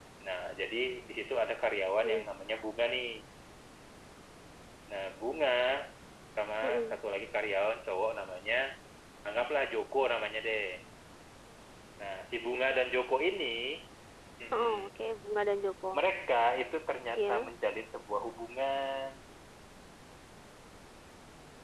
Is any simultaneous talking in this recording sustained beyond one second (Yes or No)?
No